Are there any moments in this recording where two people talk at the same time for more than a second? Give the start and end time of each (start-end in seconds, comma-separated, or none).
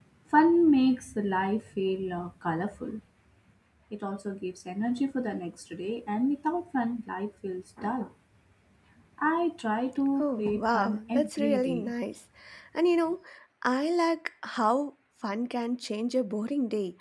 10.2-11.9